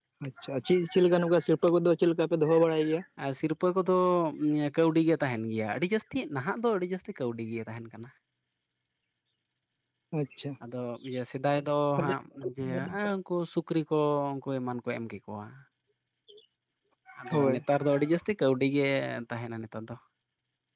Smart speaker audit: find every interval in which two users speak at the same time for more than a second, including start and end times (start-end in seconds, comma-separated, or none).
none